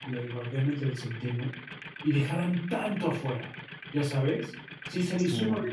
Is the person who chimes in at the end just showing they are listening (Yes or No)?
Yes